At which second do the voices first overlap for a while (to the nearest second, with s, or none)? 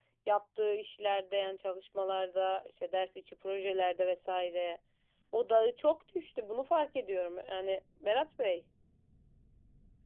none